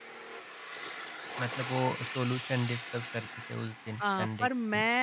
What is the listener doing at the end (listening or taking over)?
taking over